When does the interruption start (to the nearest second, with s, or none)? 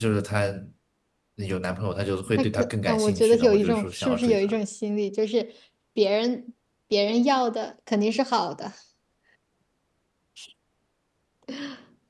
2 s